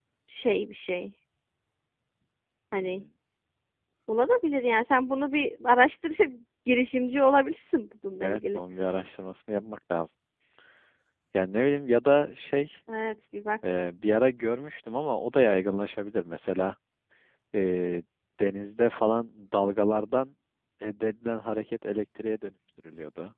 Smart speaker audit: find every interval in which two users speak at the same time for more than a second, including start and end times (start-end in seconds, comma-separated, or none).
none